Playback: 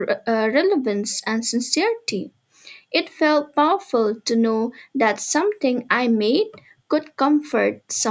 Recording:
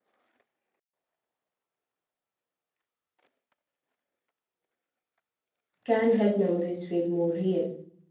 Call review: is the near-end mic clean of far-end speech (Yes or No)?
Yes